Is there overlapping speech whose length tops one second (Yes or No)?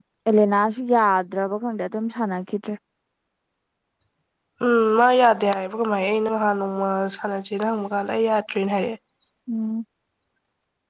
No